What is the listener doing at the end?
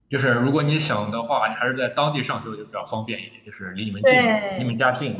taking over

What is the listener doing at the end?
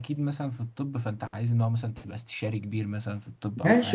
taking over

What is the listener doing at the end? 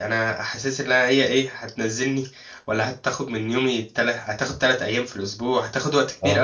listening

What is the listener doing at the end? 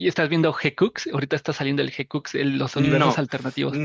taking over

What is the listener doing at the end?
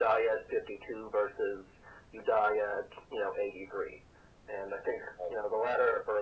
listening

